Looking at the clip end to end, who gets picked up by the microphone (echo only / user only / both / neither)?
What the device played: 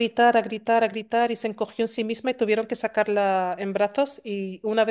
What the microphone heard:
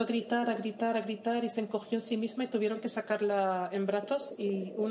echo only